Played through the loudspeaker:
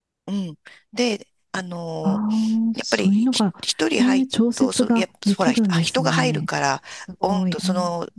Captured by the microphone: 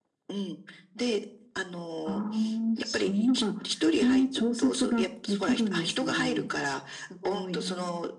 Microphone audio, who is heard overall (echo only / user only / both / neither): echo only